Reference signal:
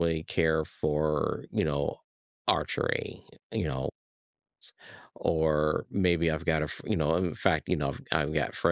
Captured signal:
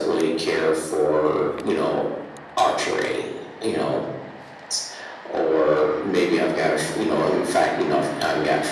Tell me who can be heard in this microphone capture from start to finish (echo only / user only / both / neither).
echo only